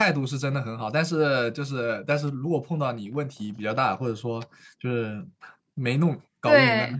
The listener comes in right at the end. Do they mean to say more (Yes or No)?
No